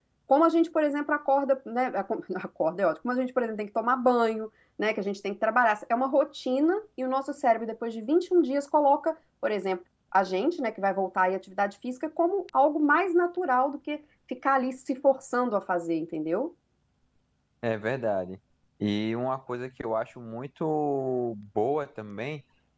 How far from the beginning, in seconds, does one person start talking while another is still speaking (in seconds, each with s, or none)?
none